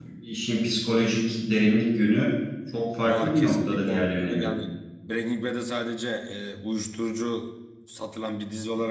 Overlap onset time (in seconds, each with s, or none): 3.0 s